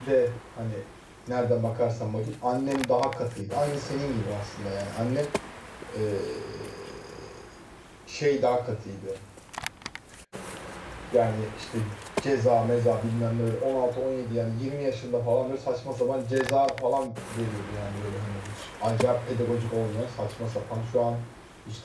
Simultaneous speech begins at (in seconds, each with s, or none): none